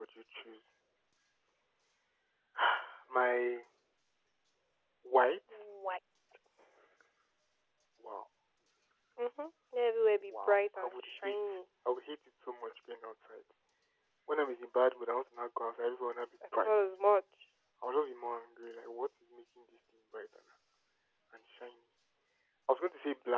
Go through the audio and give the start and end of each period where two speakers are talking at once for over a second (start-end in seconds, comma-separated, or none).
10.3-11.6